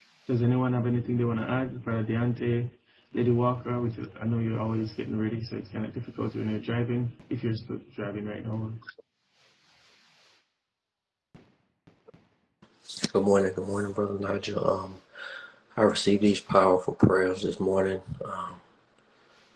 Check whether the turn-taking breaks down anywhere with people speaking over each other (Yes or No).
No